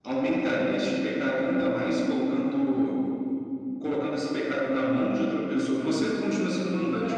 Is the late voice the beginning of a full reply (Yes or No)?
No